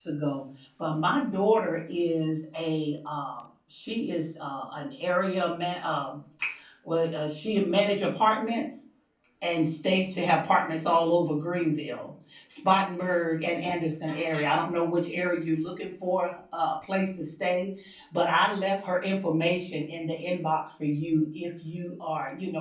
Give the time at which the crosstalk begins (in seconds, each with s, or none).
none